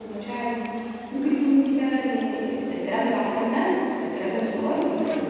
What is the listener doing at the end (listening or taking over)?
listening